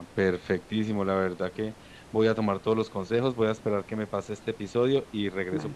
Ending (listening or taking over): listening